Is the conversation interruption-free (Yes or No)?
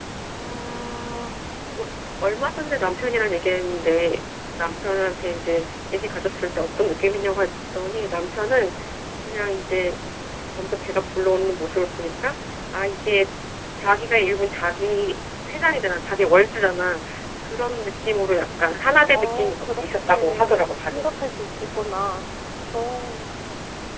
No